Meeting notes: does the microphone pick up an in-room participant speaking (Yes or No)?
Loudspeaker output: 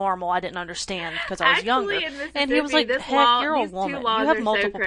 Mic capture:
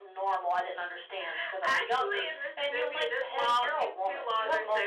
No